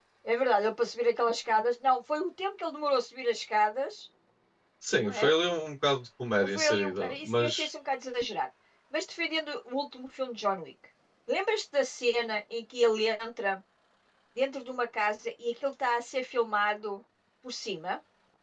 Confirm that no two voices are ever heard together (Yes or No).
No